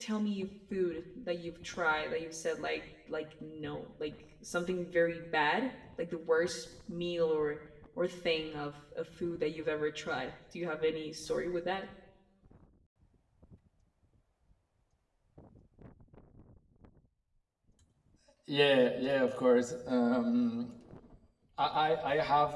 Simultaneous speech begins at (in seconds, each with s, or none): none